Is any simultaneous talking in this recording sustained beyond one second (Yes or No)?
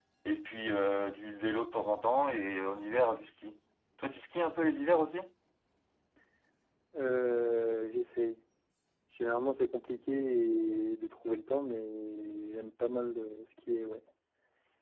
No